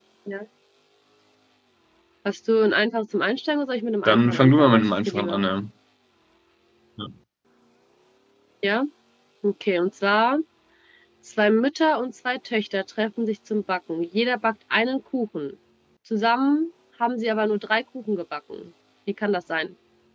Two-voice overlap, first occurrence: 4.0 s

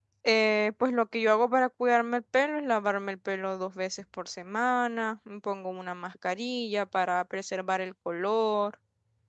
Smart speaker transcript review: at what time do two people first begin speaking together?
none

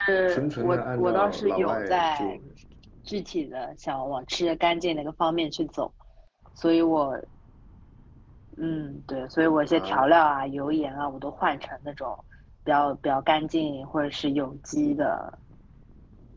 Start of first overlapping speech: 0.6 s

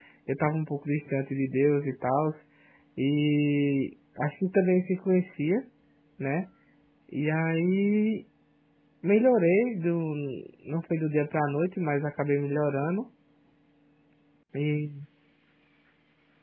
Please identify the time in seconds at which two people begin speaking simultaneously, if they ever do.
none

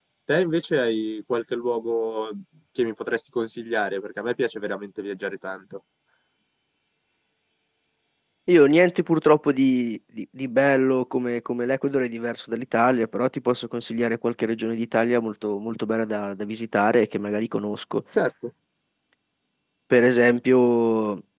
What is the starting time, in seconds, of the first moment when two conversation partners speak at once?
none

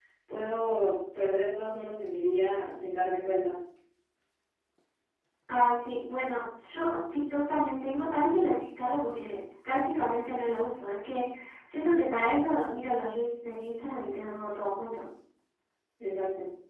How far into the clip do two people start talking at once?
none

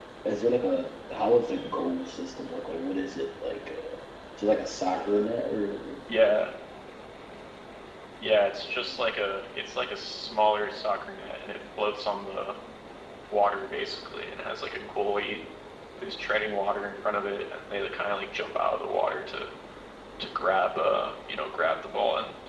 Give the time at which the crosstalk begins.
none

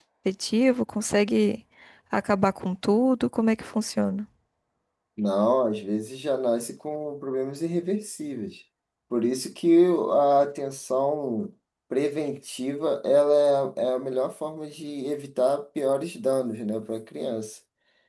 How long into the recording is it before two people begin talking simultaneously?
none

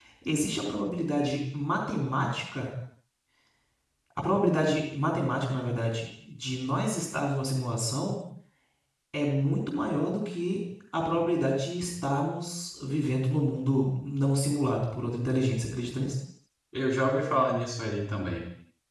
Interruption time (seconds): none

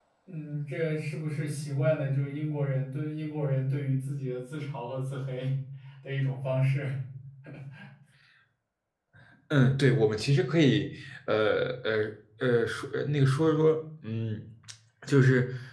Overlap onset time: none

